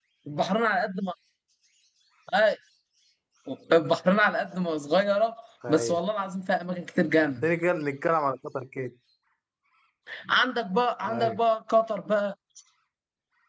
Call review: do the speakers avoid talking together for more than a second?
Yes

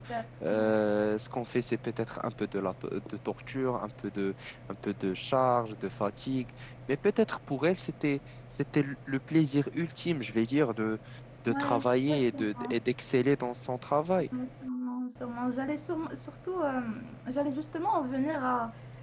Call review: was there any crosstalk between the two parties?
Yes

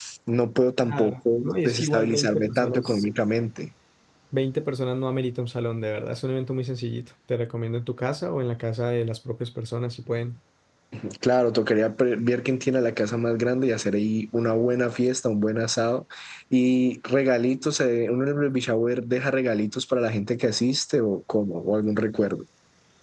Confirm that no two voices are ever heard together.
No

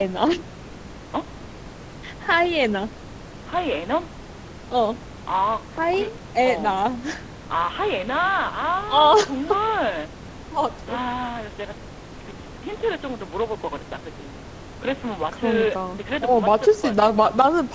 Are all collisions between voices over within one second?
No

